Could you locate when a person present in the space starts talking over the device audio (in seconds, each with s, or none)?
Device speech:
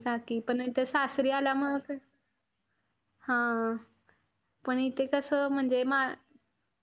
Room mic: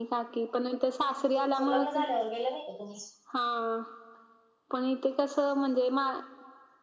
1.3 s